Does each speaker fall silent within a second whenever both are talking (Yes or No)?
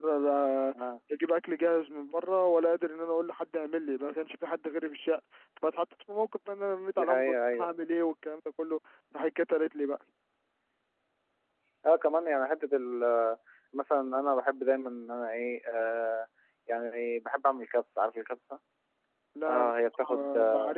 No